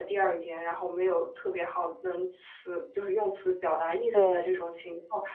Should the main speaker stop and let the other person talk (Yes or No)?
No